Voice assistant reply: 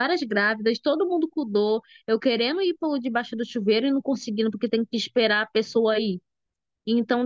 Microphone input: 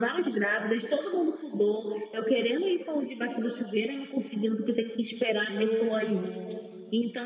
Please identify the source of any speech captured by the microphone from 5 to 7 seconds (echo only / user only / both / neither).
both